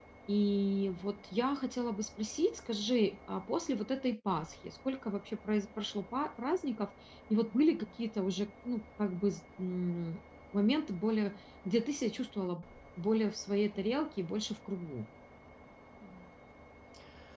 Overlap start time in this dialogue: none

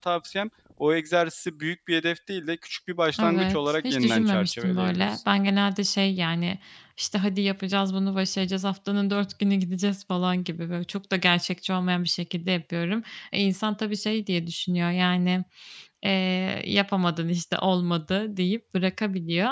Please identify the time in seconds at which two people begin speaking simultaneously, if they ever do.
3.1 s

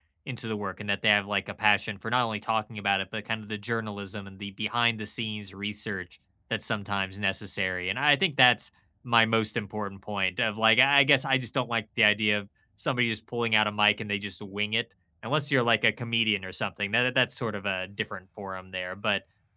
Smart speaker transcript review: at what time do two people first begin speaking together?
none

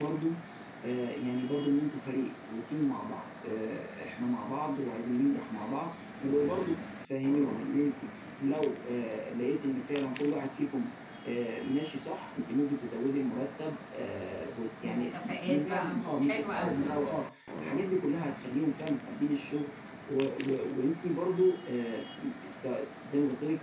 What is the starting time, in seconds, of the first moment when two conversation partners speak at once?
14.8 s

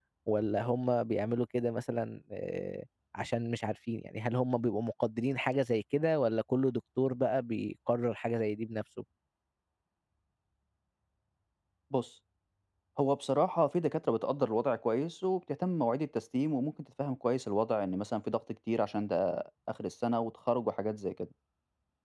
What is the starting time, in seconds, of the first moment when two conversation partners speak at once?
none

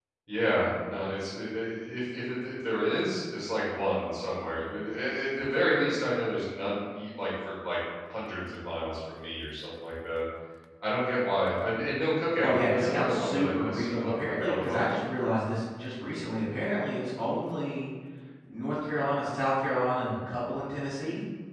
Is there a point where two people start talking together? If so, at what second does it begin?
12.4 s

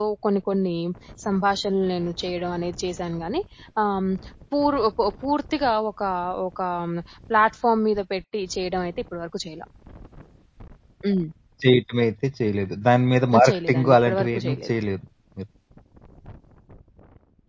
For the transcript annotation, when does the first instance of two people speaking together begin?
13.3 s

